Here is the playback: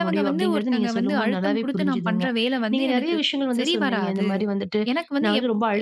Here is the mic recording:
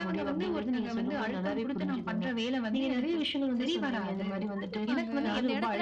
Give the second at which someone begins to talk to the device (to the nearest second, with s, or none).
5 s